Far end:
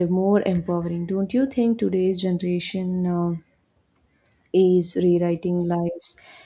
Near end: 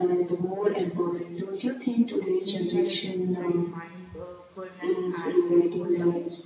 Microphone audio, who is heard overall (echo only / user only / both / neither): both